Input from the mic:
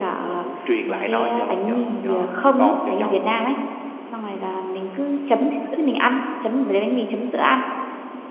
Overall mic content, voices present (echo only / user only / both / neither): echo only